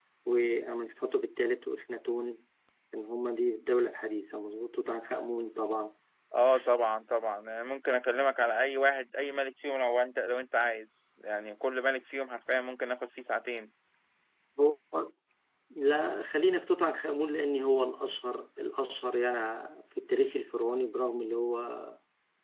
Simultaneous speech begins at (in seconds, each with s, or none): none